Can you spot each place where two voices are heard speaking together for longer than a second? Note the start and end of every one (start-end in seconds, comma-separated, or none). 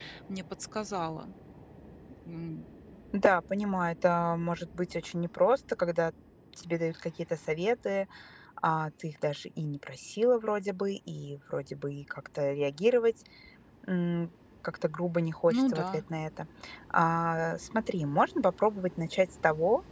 none